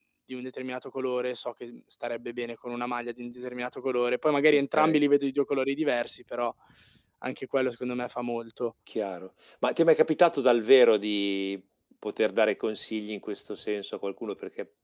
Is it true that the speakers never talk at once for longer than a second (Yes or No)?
Yes